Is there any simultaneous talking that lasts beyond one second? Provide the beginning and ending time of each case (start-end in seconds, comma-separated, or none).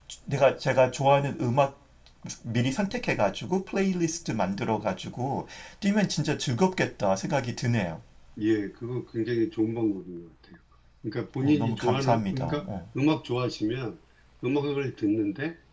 11.4-12.6